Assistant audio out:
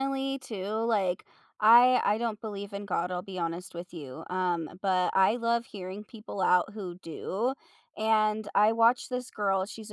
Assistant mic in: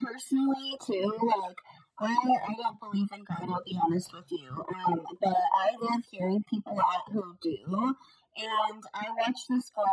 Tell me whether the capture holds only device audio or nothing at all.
Yes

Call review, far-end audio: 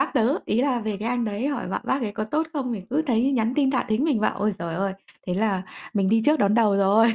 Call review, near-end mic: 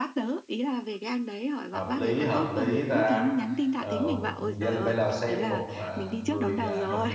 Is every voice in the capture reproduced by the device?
No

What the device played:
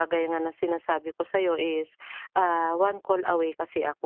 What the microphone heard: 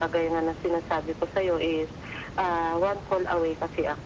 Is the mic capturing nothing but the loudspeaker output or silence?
Yes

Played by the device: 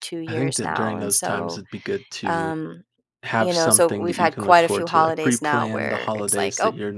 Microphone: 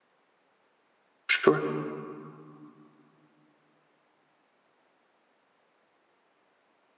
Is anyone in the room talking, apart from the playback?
Yes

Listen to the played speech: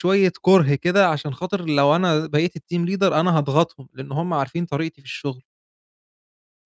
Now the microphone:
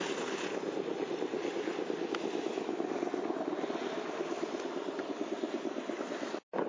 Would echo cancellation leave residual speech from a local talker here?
No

